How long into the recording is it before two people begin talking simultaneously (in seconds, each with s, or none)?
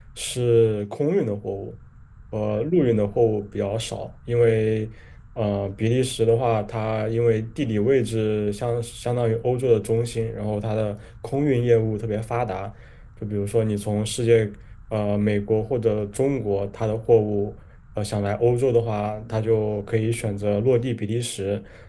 none